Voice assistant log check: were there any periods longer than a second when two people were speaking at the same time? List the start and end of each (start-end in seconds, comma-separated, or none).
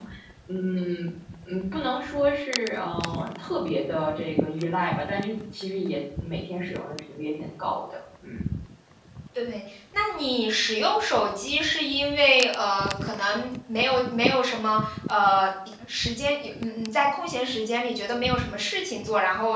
none